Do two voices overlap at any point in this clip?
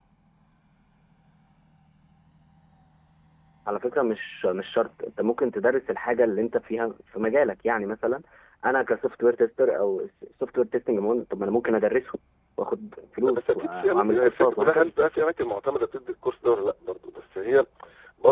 Yes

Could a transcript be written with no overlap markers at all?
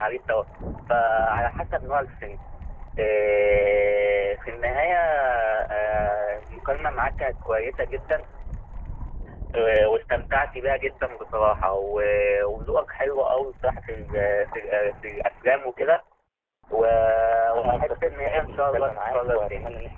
No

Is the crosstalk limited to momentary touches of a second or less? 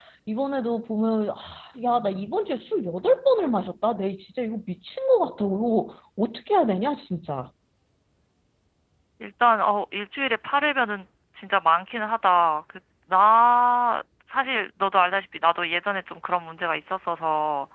Yes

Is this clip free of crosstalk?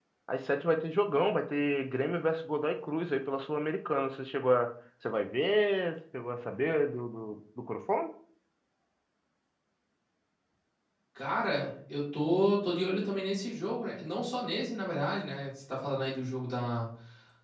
Yes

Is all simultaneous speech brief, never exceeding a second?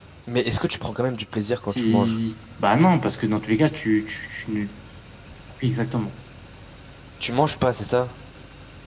Yes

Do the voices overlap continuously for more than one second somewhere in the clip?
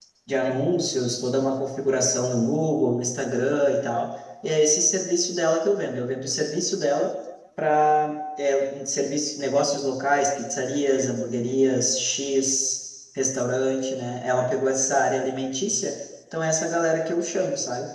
No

